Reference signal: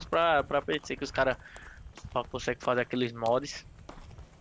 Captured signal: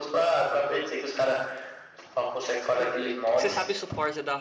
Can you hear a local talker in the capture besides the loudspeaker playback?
Yes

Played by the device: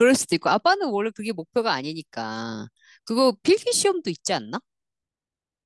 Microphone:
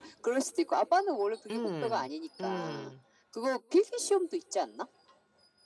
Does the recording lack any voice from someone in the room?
No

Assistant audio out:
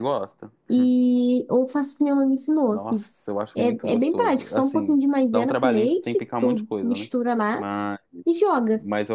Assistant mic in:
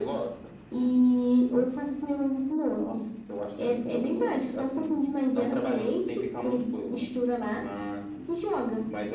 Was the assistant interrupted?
No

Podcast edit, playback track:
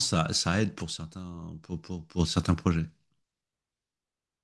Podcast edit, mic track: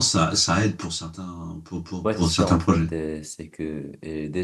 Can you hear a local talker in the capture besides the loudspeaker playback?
Yes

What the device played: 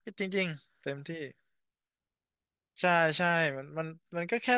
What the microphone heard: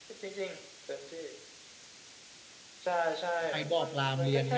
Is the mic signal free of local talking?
No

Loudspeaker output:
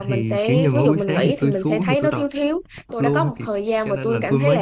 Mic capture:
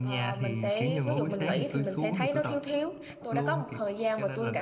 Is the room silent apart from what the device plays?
Yes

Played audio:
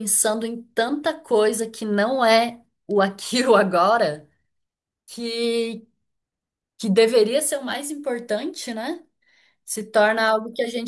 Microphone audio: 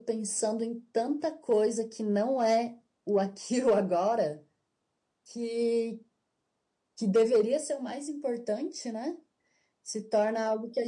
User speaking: No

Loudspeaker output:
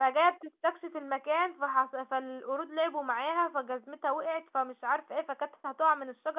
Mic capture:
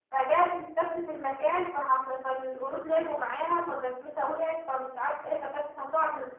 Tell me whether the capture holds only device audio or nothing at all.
Yes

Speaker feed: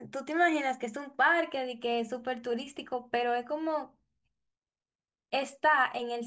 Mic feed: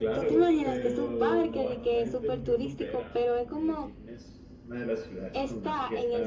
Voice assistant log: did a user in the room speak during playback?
Yes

